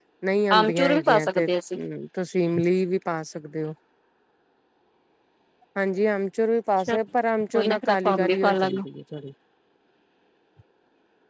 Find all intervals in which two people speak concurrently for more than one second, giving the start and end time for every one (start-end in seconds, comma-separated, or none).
0.5-1.8, 7.5-8.8